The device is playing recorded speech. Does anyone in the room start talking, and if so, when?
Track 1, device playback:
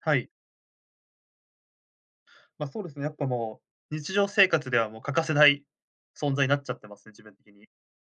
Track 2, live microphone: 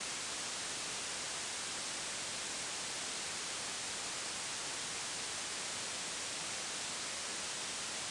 none

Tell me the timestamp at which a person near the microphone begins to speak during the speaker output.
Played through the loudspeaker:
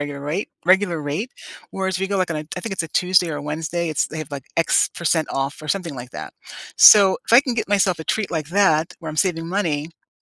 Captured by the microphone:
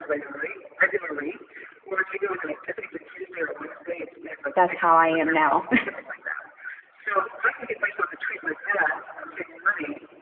4.5 s

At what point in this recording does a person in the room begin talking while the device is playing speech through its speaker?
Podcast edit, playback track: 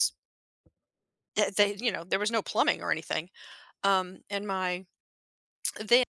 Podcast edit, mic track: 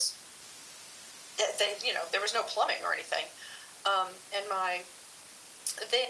none

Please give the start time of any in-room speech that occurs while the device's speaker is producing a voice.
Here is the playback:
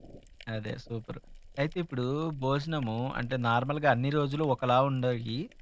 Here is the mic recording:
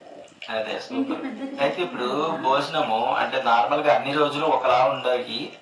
1.0 s

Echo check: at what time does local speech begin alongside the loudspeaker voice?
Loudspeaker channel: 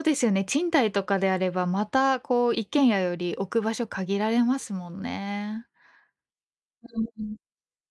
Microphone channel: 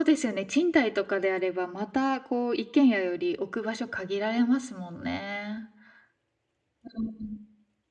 none

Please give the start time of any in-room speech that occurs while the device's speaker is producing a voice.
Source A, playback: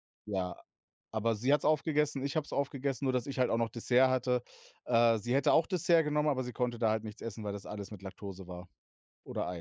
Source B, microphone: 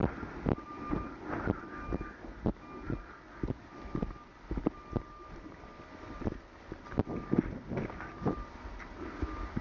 none

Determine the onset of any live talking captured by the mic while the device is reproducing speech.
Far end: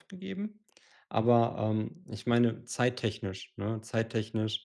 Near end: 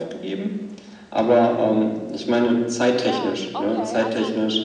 2.9 s

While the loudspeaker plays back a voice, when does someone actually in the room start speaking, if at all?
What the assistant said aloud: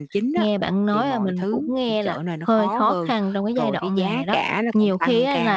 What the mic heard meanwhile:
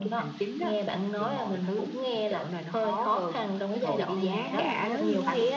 3.7 s

